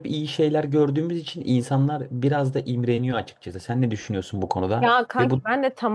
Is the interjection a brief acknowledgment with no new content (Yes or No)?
No